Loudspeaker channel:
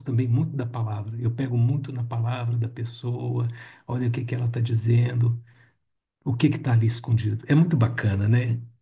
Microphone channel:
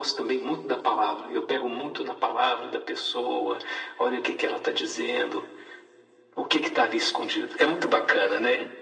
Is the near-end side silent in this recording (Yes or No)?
Yes